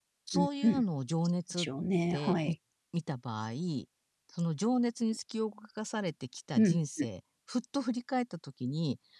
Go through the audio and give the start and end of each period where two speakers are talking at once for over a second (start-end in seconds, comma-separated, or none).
none